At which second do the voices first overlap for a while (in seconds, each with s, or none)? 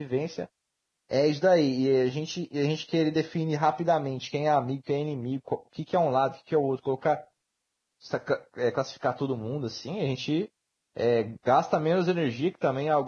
none